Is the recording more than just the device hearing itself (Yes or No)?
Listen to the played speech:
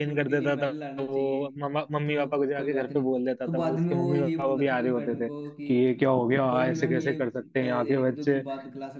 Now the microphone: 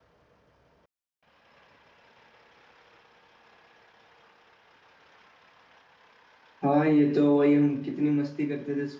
Yes